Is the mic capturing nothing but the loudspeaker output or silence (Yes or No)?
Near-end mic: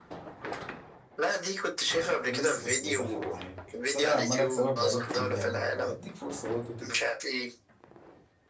No